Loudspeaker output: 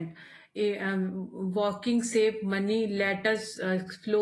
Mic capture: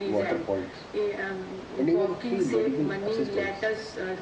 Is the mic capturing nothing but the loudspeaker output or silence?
No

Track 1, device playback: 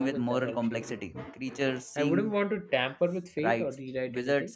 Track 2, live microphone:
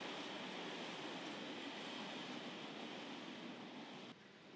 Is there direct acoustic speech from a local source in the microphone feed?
No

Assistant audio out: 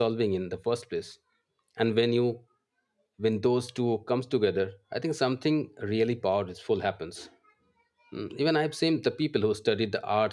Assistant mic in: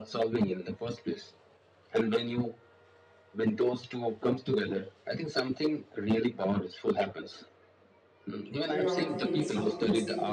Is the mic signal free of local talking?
No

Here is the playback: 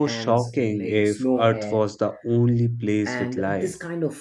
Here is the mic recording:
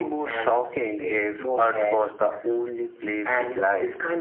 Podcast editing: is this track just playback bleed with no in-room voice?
Yes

